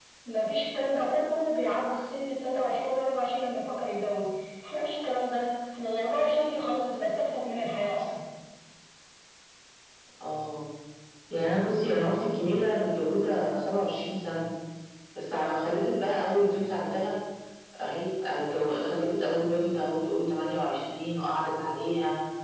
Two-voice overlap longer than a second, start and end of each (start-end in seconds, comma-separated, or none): none